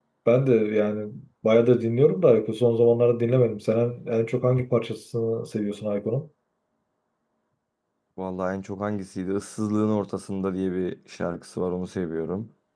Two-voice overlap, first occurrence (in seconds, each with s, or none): none